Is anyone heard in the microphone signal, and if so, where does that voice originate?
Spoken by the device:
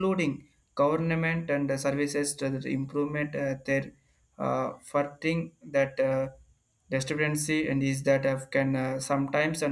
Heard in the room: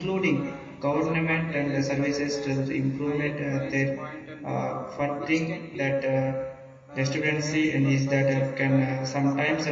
both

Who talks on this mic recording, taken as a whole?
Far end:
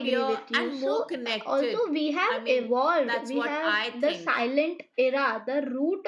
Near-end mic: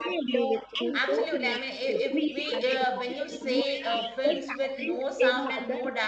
both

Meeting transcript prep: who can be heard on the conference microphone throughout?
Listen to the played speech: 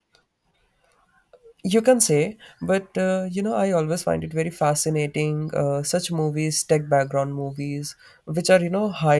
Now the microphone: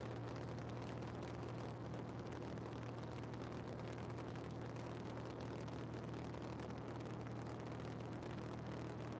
neither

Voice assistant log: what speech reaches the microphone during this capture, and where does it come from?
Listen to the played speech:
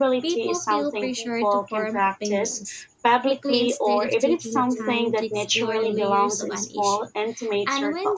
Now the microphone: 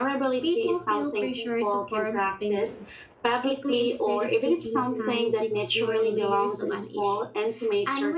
echo only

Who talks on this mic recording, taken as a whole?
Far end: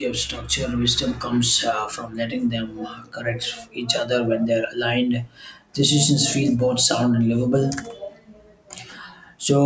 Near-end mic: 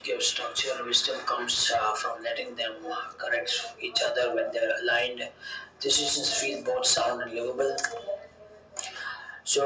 echo only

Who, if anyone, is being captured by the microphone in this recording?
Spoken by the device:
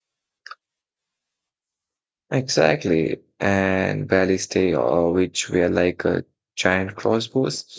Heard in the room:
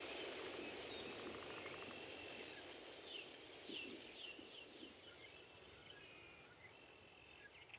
neither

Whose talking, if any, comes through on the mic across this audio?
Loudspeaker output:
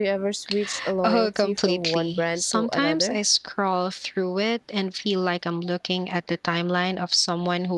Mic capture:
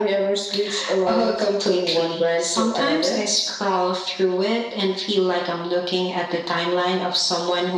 echo only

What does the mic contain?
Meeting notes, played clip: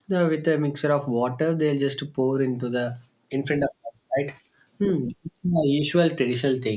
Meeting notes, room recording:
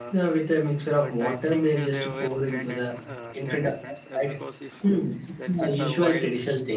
both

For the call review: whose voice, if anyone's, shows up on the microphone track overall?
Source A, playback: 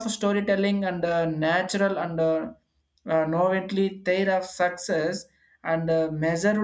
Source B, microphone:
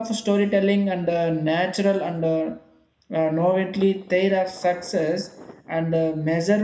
echo only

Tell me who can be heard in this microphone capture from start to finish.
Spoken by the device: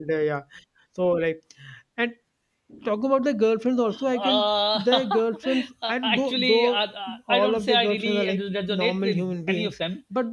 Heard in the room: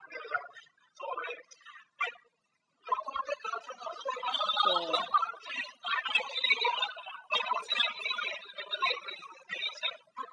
both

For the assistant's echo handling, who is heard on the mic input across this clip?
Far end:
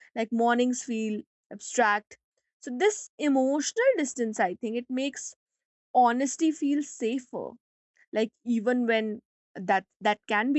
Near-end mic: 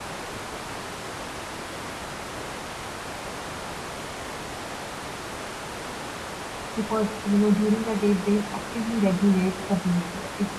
user only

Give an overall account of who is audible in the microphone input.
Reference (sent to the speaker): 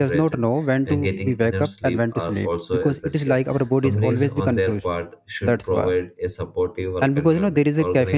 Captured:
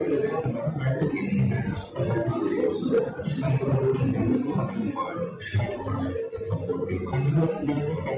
echo only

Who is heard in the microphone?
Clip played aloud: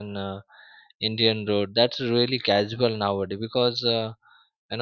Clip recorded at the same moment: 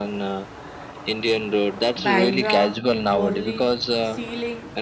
both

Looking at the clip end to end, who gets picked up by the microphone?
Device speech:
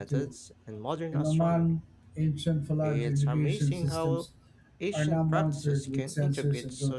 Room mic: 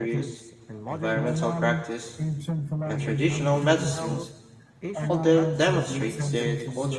both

